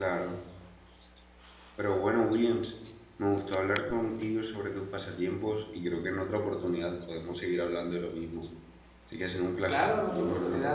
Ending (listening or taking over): taking over